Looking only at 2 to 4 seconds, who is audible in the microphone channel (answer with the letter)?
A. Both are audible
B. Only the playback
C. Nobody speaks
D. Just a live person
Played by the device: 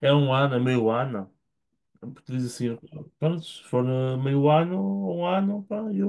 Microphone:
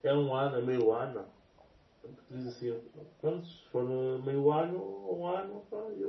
B